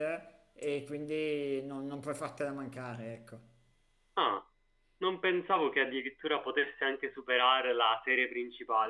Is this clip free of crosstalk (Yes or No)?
Yes